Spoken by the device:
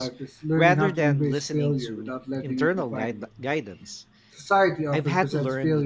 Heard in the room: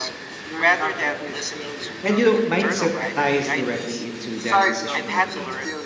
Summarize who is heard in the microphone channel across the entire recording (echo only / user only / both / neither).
both